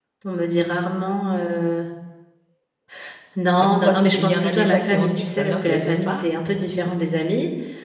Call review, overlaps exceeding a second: present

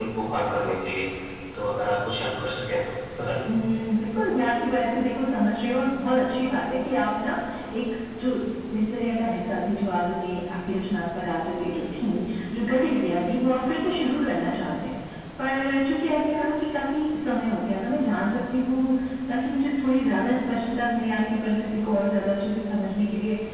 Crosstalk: none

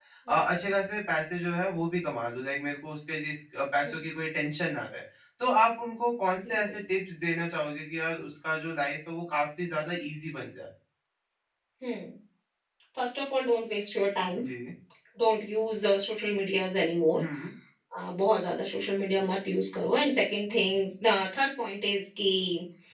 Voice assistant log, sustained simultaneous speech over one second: none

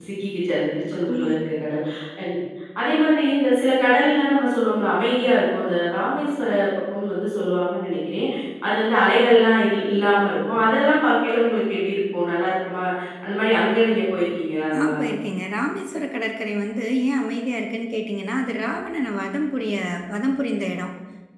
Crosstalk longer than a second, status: none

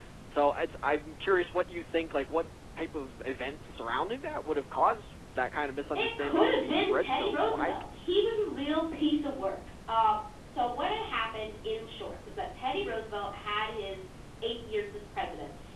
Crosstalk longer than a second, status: present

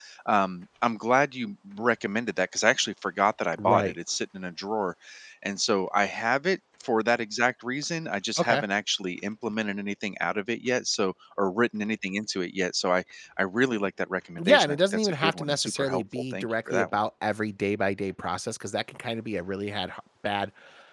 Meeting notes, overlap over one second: present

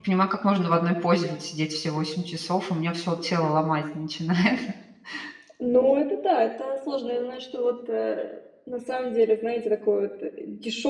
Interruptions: none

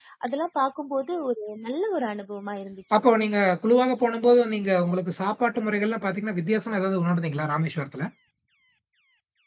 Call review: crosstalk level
none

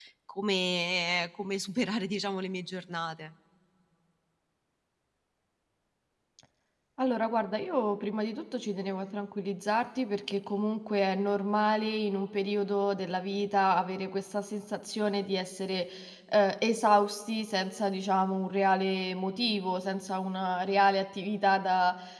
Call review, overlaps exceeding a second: none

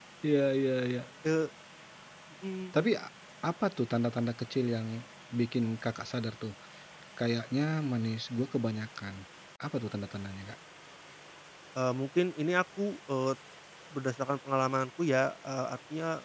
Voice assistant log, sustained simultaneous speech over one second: none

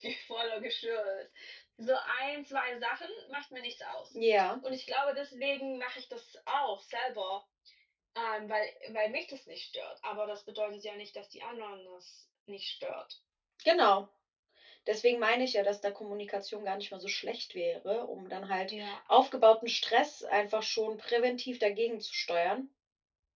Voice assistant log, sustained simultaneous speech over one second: none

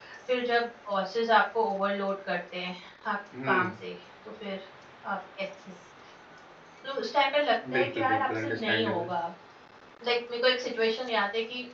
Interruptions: present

